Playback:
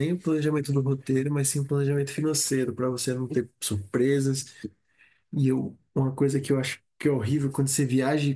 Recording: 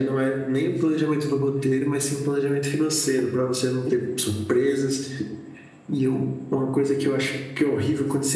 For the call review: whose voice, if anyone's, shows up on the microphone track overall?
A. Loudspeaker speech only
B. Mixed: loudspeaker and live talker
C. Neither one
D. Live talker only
A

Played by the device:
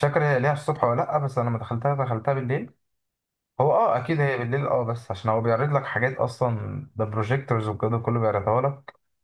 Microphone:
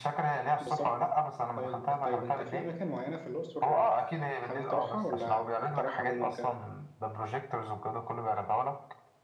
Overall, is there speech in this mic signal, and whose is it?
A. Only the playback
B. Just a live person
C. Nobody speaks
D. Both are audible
D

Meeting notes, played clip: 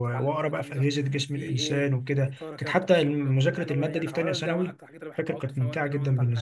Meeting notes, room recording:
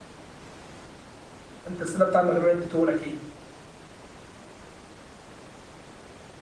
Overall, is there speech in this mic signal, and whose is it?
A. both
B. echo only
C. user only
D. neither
C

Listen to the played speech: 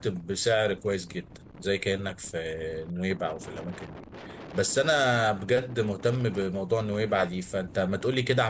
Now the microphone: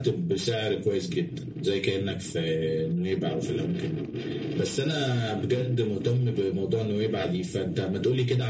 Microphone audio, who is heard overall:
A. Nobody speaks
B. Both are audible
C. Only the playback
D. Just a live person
C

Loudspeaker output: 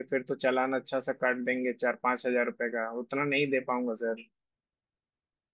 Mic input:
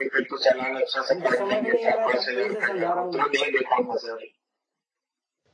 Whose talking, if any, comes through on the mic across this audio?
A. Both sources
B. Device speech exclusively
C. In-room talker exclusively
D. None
A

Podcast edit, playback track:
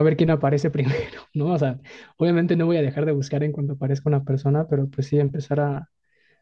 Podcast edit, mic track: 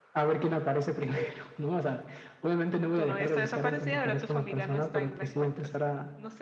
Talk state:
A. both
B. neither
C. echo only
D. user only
A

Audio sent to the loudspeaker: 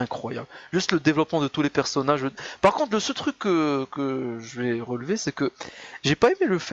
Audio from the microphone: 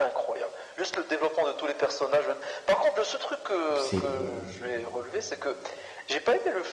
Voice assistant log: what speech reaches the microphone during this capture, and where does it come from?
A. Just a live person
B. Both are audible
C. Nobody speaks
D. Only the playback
B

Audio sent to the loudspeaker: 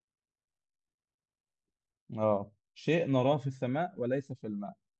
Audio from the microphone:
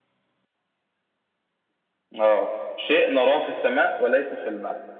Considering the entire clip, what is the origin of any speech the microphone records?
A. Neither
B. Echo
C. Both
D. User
B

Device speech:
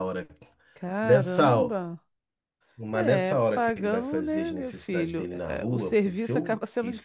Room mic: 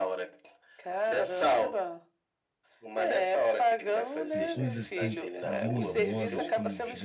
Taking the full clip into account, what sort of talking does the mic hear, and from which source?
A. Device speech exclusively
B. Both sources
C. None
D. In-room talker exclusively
B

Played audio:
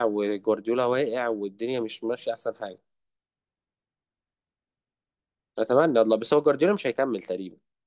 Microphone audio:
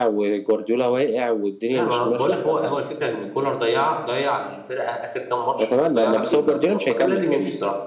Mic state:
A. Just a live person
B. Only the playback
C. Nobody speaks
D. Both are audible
D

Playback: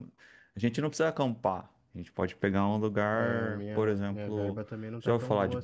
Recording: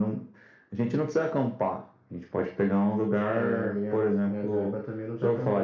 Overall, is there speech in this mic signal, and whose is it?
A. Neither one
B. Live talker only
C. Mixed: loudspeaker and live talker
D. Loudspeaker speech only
D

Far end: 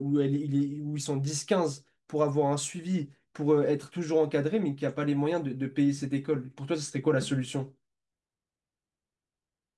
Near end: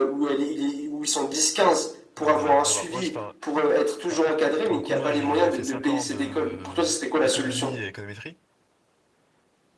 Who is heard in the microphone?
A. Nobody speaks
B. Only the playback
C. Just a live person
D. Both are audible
D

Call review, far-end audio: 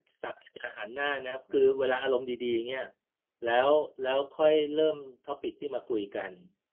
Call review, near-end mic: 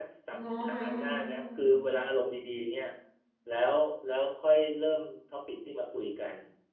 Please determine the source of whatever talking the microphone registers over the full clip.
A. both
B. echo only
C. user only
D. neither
A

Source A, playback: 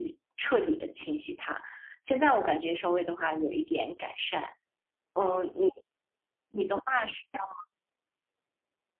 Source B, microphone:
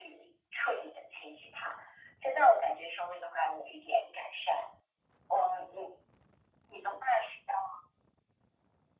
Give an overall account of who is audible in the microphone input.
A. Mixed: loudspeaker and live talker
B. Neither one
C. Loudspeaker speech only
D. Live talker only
C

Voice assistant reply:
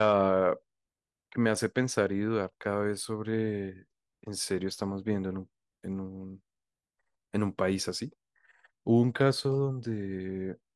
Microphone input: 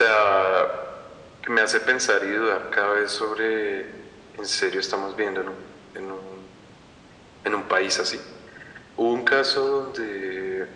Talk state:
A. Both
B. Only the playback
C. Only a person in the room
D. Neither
B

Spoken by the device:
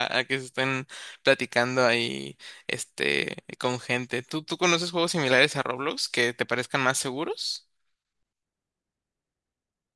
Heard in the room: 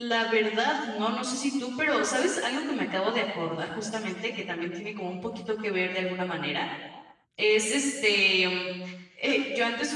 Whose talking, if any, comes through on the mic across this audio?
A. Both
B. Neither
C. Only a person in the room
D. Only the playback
C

